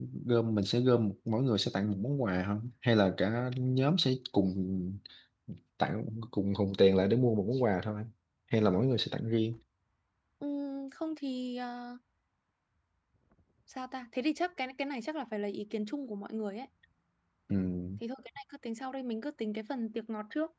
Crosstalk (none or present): none